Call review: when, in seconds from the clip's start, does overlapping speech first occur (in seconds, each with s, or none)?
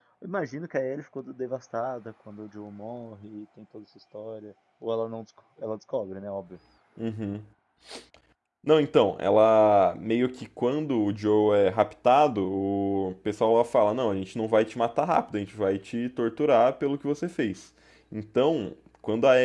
none